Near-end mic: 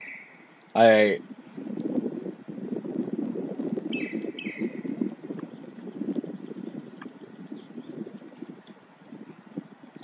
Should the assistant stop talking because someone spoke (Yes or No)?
Yes